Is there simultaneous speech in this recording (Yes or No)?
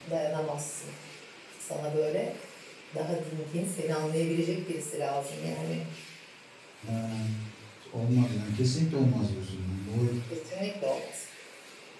No